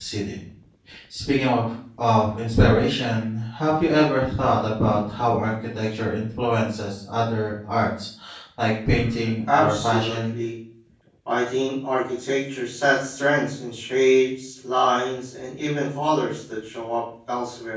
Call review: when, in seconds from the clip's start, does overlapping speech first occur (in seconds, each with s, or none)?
8.9 s